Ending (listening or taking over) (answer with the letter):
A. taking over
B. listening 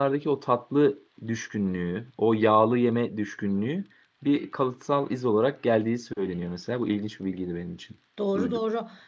A